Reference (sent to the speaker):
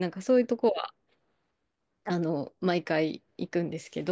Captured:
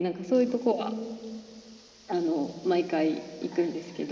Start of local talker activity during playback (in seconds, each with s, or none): 0.8 s